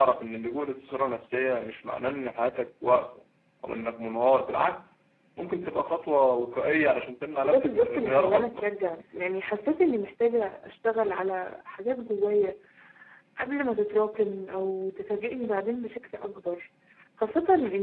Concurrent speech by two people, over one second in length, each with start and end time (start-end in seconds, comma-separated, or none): 7.4-8.7